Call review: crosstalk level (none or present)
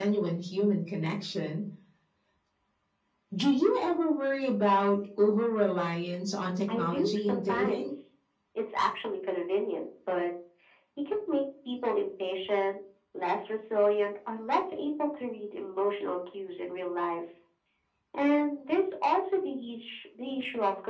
present